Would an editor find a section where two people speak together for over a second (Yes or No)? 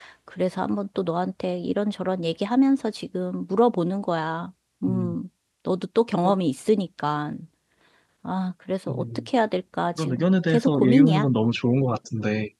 Yes